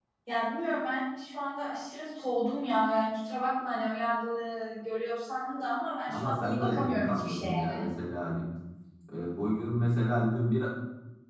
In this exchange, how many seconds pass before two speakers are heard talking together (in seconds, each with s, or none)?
6.1 s